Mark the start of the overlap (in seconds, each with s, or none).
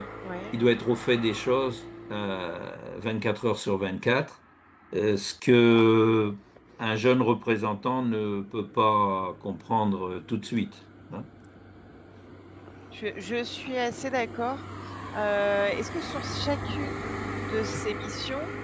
none